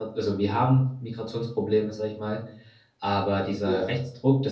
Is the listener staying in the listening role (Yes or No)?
Yes